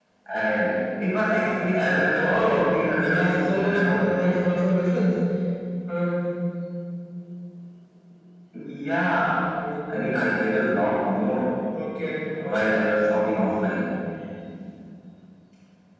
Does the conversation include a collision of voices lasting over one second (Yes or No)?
Yes